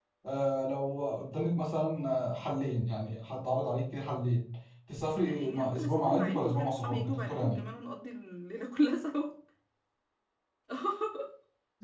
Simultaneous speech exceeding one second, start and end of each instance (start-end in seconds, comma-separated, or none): 5.2-7.6